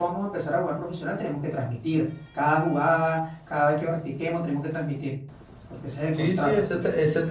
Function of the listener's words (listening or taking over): taking over